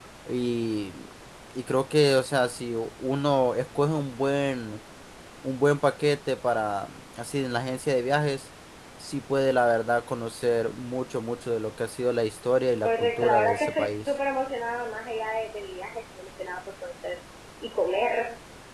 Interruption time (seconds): 13 s

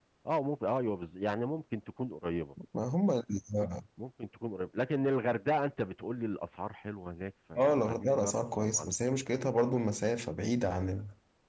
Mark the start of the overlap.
8 s

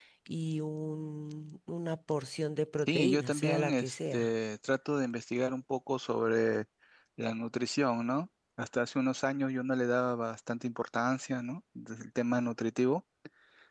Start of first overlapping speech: 3 s

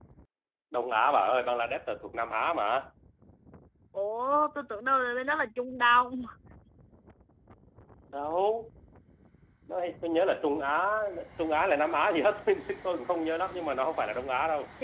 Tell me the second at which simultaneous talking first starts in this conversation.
none

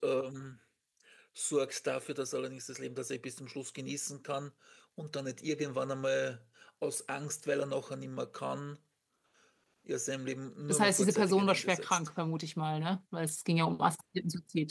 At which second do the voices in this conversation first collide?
11 s

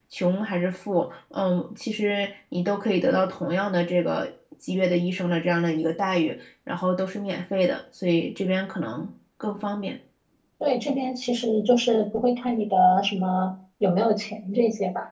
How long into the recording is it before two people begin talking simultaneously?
none

